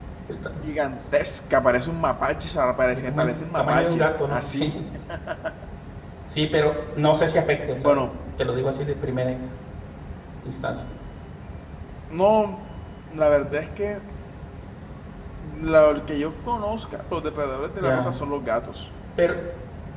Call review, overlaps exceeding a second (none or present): present